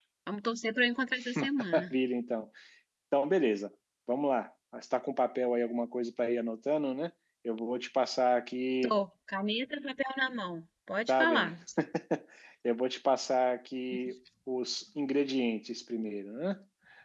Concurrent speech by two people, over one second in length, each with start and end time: none

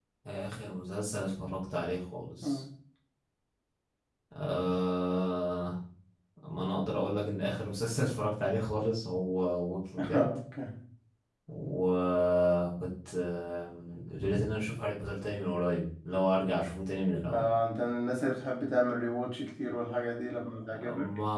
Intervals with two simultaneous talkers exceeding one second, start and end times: none

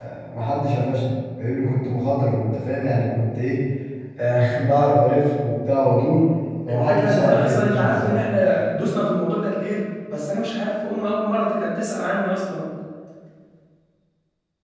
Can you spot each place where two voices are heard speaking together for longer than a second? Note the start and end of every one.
6.7-8.2

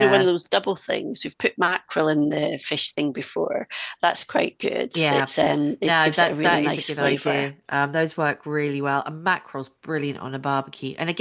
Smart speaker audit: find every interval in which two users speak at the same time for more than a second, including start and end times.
5.8-7.5

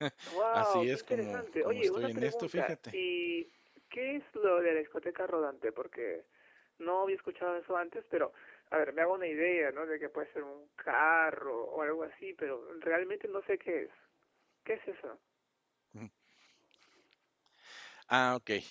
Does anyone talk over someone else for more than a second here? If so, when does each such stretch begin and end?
0.5-2.7

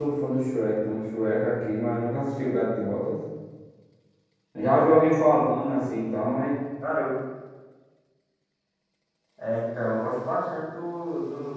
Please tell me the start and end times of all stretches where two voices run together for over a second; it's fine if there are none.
none

